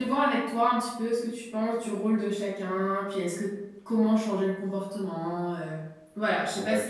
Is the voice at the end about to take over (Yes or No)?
Yes